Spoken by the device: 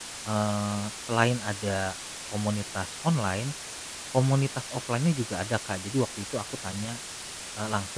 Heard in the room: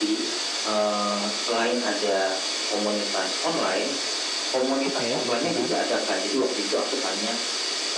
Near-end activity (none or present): present